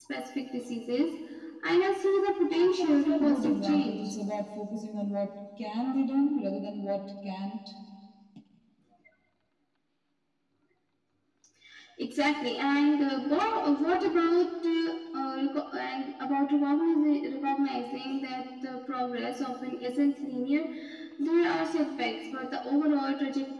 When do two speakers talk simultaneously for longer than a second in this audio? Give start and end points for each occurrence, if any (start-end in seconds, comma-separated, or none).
2.5-4.1